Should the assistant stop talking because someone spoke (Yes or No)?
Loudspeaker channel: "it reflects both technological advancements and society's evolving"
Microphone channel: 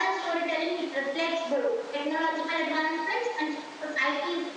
No